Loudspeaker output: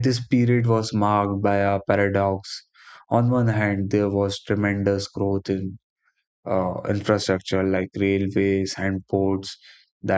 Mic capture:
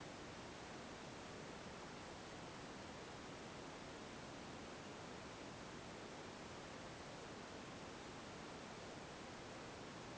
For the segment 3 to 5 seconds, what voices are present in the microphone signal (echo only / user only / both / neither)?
neither